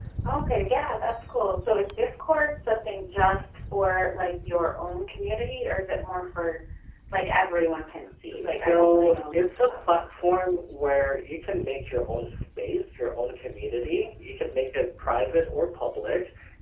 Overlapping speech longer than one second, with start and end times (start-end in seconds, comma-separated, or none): 8.4-10.4